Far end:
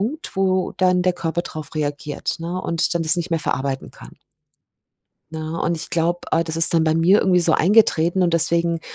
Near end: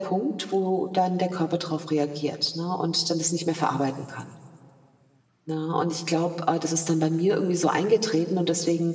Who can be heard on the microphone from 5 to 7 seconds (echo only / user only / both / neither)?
echo only